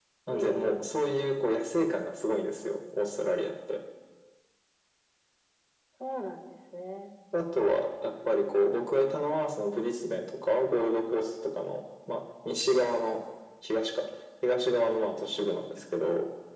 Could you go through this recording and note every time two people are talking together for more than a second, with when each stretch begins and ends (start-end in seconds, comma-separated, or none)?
none